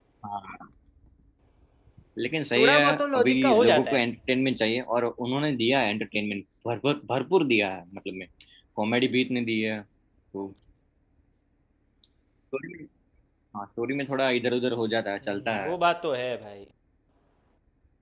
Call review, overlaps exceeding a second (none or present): present